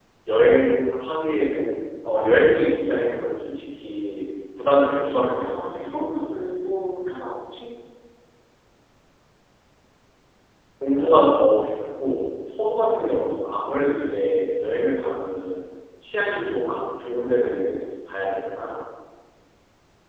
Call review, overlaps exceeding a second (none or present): present